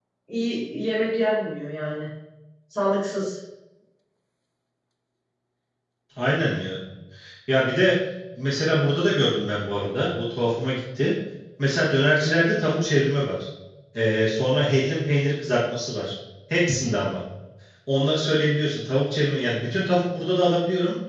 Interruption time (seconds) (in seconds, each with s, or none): none